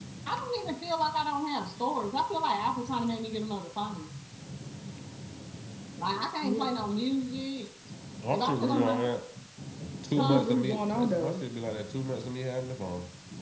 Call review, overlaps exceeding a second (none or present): present